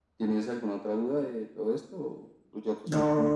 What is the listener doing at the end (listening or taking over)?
taking over